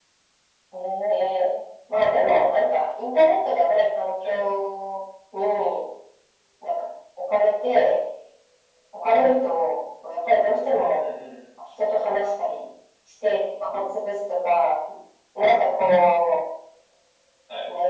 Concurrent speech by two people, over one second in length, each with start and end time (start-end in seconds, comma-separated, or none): none